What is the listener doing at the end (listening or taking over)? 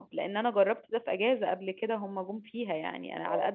listening